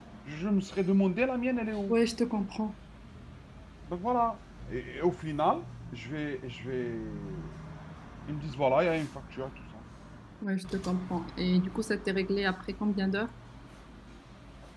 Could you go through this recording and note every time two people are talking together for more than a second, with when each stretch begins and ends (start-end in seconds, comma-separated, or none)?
none